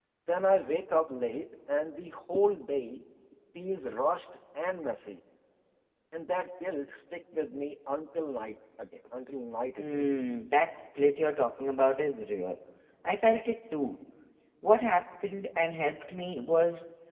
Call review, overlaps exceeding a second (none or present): none